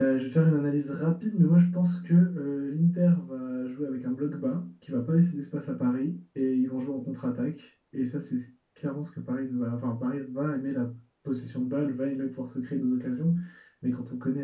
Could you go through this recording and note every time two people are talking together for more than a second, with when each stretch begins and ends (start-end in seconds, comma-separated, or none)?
none